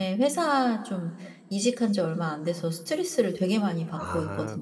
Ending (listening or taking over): taking over